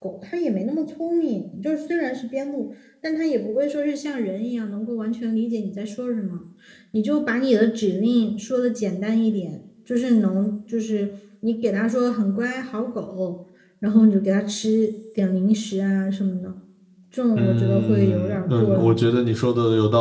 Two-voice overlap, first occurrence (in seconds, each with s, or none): 17.4 s